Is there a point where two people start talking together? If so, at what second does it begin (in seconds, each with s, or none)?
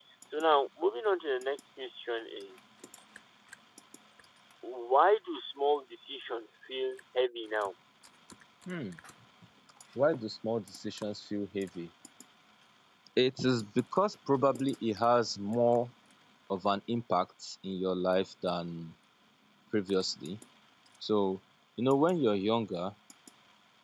none